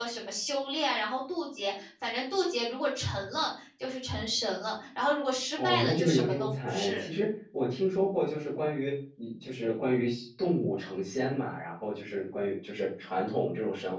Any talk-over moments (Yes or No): Yes